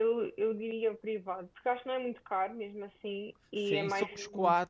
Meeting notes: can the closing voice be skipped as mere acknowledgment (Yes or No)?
No